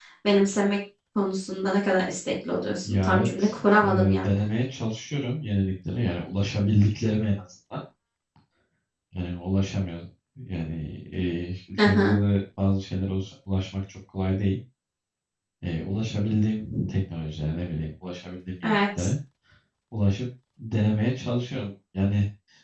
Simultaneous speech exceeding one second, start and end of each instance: 2.9-4.2

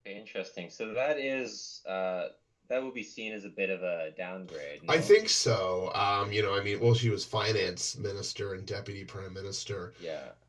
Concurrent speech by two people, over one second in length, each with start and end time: none

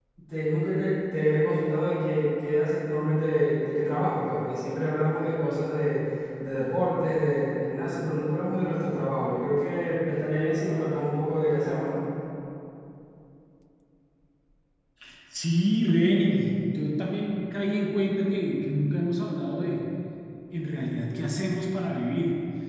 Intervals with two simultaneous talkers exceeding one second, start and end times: none

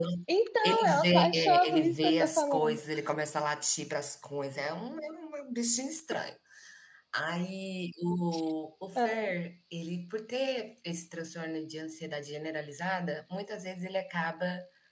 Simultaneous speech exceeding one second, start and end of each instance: 0.6-2.8

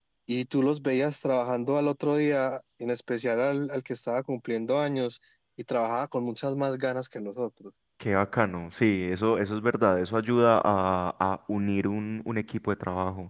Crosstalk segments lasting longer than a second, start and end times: none

